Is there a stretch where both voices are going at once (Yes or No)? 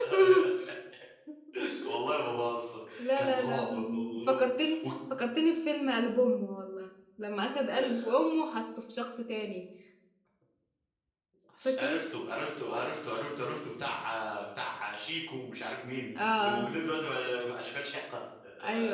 Yes